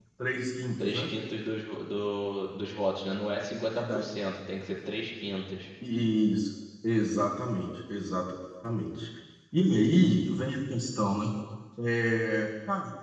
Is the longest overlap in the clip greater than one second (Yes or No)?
No